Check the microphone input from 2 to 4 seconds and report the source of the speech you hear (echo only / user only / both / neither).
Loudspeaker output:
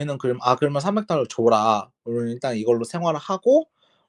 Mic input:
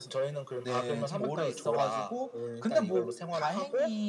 both